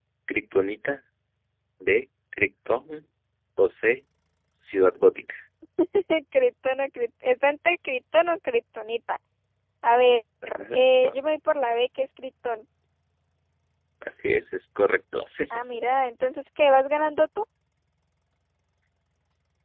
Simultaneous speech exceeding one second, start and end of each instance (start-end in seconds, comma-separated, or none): none